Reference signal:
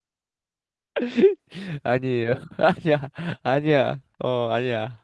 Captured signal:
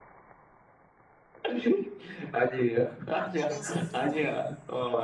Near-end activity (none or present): present